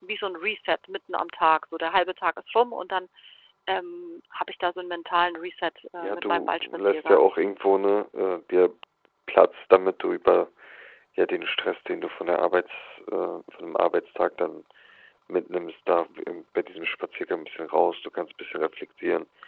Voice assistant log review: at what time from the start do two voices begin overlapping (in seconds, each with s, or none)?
6.0 s